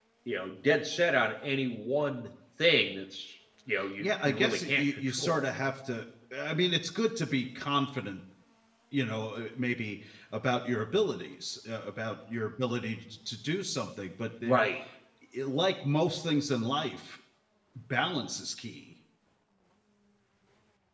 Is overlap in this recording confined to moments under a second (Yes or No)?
No